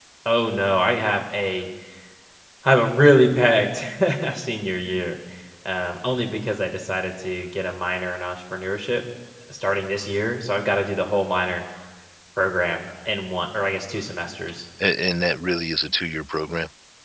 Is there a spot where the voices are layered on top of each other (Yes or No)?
No